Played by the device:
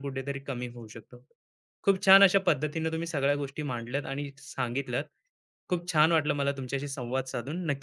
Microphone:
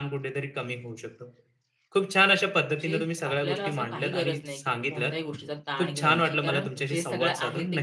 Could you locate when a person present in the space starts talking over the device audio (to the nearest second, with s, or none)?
3 s